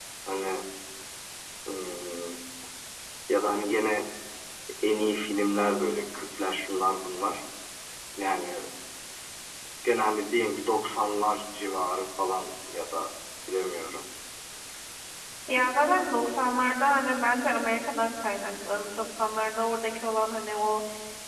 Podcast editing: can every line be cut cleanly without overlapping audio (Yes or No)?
Yes